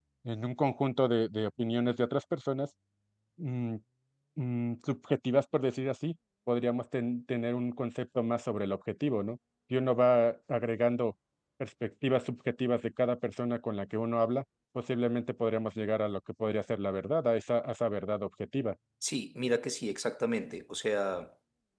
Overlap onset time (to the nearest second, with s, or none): none